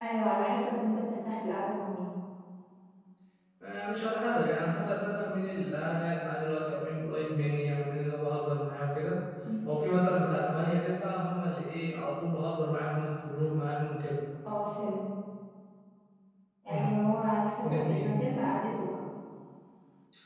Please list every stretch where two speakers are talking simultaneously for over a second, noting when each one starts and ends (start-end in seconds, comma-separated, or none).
none